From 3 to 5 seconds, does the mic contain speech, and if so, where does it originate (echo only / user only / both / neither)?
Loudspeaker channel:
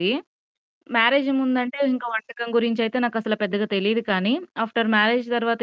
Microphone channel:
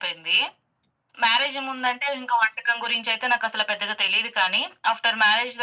echo only